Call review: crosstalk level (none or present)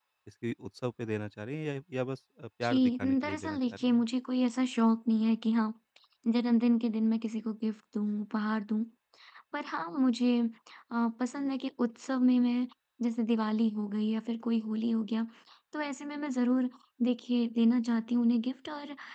present